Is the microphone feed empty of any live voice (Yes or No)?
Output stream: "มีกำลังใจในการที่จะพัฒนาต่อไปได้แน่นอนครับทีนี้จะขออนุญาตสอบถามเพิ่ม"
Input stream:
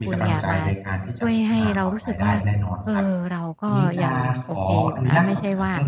No